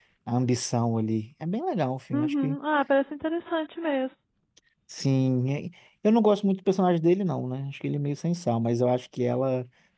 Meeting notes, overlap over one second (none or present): none